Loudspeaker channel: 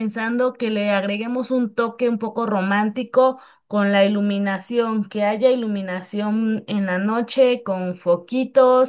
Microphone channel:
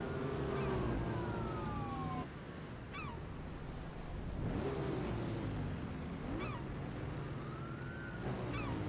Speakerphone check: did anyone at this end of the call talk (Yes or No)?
No